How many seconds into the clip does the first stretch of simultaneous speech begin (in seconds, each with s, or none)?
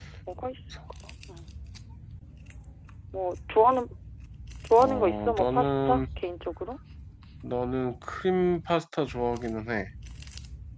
4.8 s